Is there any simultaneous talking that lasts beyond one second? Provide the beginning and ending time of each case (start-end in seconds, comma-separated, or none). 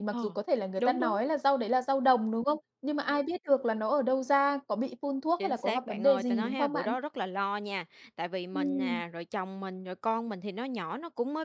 5.4-7.0